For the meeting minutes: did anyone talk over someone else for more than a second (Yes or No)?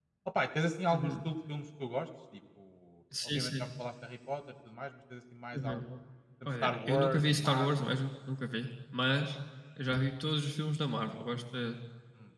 Yes